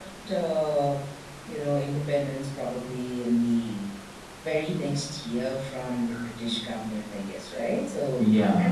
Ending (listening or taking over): listening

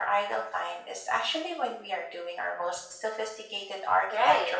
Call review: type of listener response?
taking over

